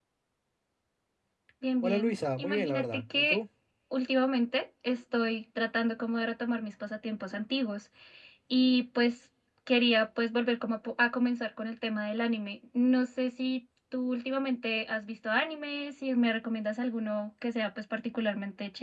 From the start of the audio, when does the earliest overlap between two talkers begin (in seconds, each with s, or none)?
1.8 s